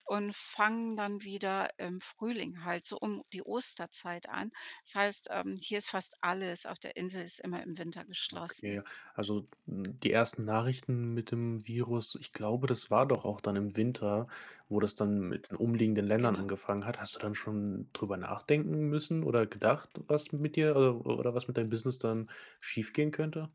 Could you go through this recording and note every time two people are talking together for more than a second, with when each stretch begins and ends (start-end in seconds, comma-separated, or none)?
none